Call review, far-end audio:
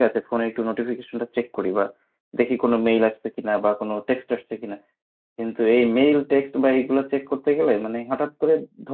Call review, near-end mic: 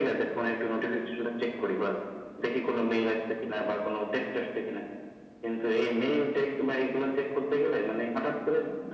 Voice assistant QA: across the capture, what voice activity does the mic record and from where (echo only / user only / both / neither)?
echo only